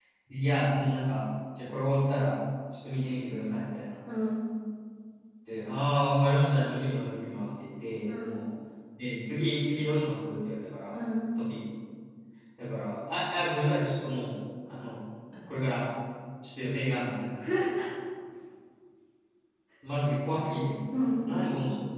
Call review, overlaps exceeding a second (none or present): none